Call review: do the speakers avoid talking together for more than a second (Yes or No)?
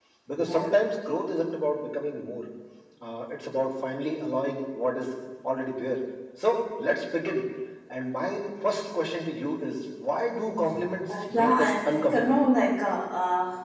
No